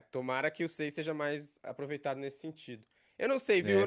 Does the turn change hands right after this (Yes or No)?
No